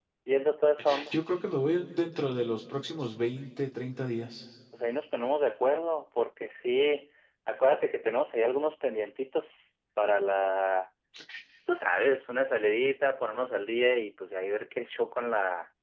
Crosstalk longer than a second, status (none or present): none